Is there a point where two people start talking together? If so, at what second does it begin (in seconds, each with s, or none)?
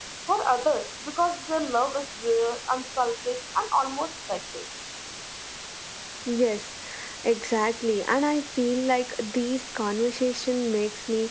none